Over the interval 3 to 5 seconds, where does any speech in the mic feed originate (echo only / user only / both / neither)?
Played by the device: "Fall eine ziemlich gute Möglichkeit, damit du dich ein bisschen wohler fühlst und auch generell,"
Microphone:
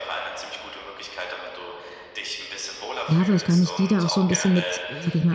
both